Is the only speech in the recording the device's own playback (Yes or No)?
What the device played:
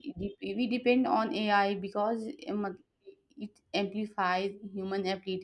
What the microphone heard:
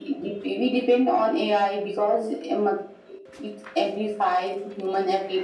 Yes